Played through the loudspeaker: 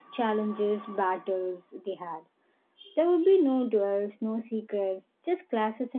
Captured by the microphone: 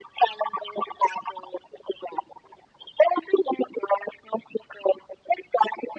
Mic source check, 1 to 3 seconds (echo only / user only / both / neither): echo only